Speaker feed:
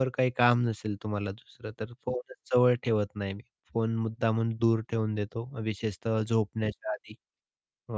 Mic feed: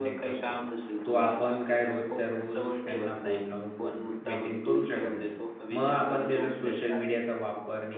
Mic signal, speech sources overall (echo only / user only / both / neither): both